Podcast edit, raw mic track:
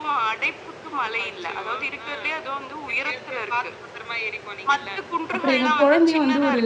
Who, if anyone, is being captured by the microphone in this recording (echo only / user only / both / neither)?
both